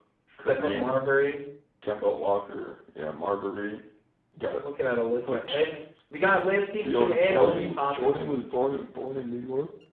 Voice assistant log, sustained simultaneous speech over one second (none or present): present